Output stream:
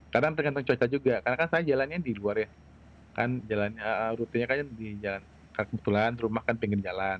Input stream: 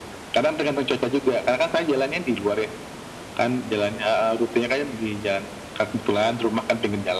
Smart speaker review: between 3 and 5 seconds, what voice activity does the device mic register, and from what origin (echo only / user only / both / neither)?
echo only